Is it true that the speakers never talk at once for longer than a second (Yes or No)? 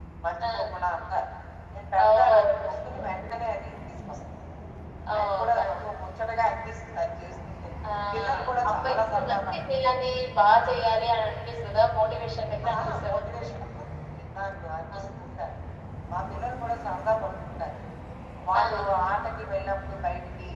No